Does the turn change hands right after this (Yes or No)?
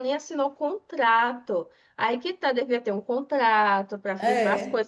No